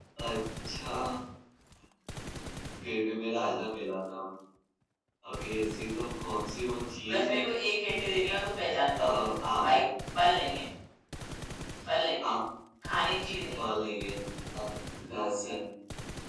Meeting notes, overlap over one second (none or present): none